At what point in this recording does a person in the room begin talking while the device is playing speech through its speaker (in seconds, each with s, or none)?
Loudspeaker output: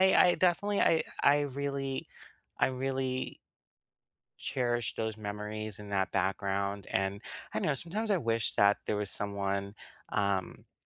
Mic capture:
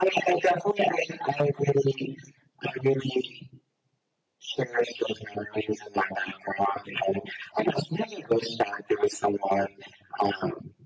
none